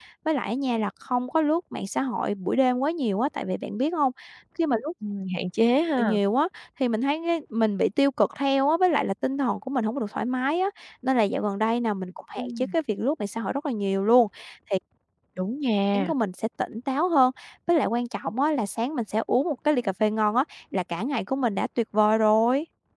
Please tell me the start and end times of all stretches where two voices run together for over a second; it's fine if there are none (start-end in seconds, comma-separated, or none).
none